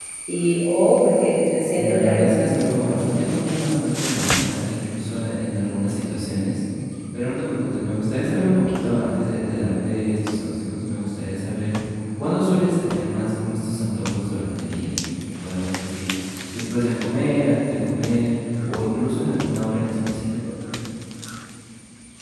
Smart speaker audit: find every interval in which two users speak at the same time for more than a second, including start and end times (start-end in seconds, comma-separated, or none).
1.2-3.2